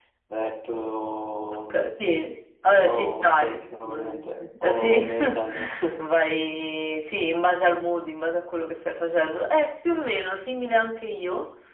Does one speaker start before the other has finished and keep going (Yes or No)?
Yes